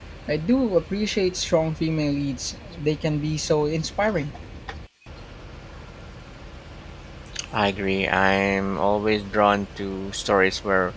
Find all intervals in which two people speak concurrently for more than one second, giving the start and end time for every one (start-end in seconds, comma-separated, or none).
none